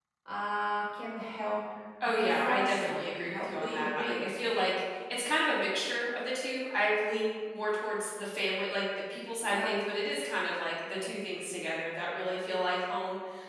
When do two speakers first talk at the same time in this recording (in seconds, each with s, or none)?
2.0 s